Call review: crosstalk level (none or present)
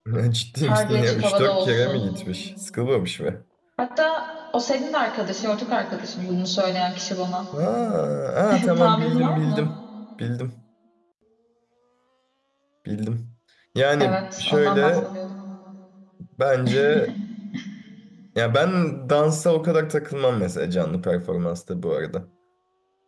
present